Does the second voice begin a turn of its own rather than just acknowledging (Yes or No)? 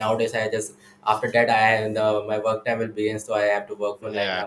Yes